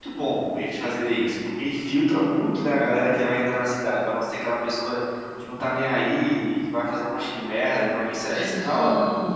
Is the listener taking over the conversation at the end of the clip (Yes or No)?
Yes